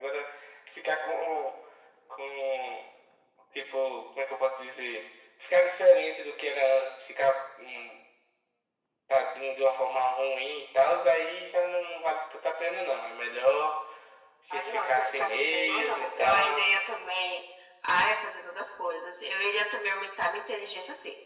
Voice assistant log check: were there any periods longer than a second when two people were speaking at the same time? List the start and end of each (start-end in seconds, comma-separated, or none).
14.5-16.6